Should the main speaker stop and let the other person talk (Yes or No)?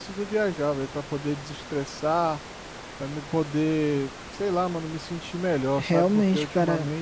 Yes